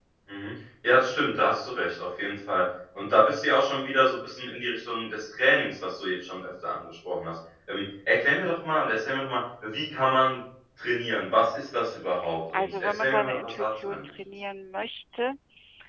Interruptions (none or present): present